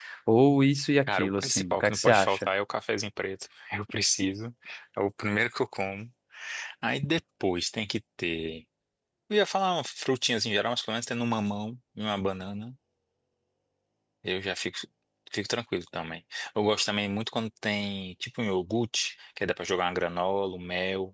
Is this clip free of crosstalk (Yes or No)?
No